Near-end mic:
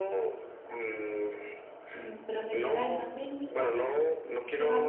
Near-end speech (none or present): present